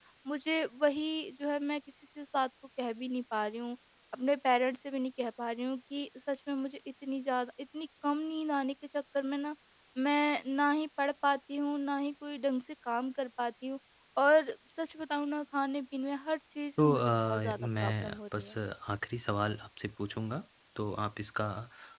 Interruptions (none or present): present